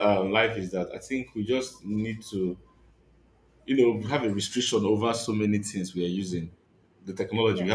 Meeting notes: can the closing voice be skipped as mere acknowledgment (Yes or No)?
Yes